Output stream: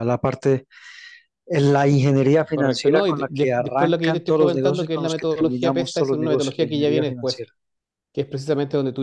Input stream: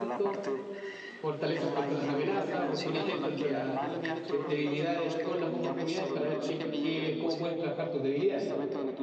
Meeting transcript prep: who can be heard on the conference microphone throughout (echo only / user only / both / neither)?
both